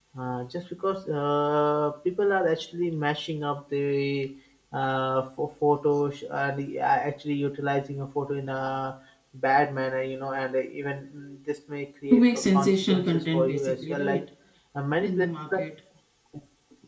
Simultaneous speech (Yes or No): Yes